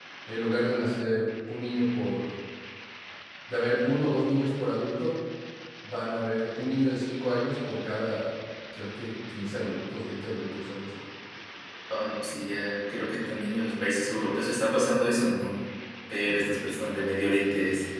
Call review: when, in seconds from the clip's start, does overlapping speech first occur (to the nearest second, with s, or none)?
none